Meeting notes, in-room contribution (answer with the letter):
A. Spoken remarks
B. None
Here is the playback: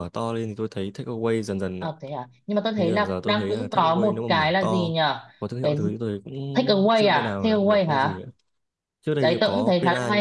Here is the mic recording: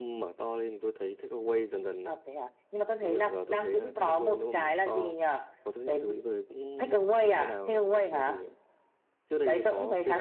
B